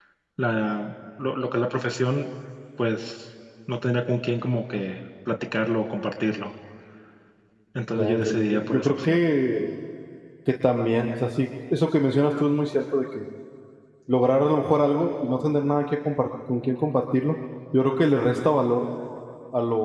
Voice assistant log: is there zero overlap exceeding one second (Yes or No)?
No